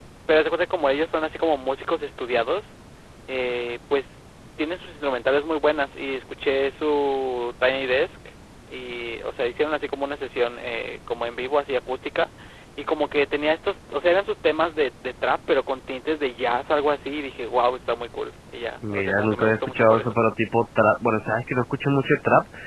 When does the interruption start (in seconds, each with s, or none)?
18.8 s